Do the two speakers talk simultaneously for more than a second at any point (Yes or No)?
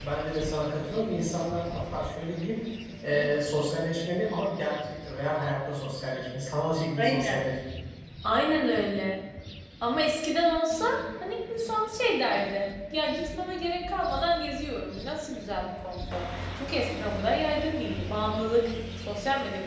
No